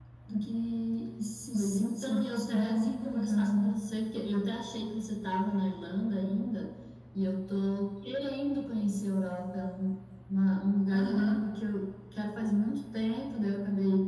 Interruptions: present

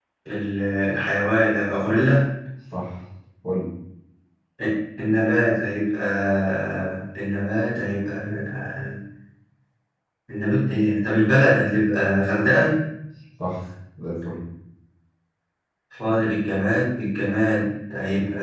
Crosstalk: none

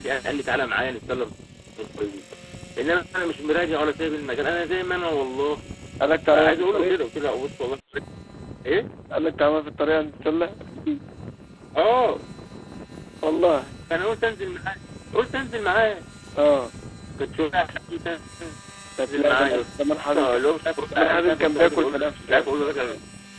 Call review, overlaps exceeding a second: present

